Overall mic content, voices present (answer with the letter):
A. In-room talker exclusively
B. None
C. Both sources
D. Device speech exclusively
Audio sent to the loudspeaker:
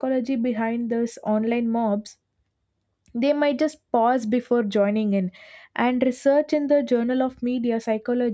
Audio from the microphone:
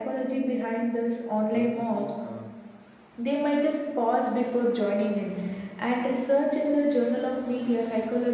C